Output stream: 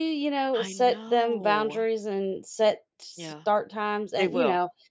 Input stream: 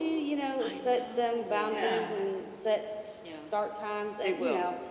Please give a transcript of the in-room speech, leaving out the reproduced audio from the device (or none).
Yeah.